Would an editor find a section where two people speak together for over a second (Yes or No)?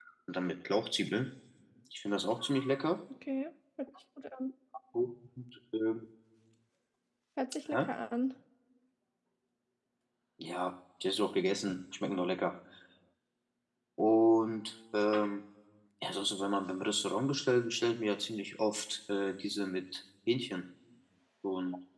No